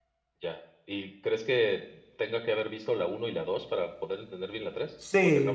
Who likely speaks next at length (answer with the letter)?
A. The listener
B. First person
A